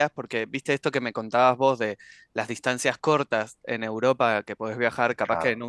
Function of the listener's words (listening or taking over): listening